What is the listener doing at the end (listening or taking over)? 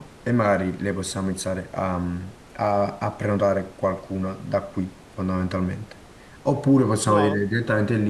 listening